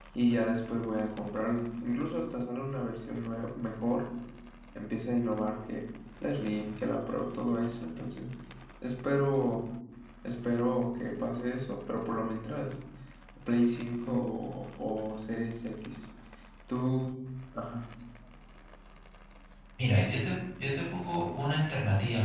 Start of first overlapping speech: none

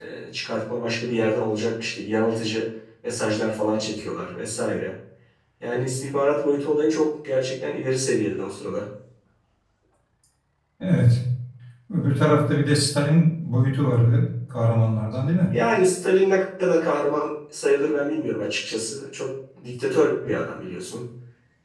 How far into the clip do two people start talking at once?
none

